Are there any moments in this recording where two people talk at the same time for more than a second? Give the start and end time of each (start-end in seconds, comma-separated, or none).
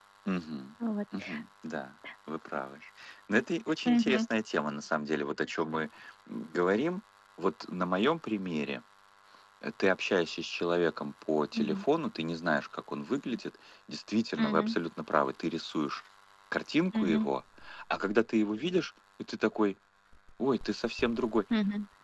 none